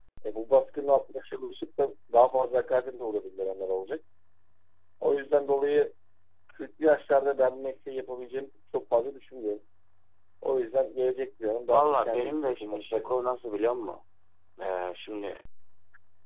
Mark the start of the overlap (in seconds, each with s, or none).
11.7 s